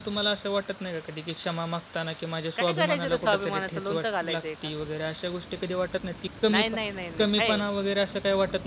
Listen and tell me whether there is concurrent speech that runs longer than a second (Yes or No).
Yes